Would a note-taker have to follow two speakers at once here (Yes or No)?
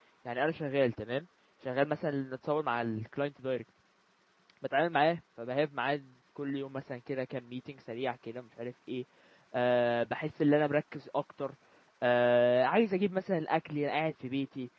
No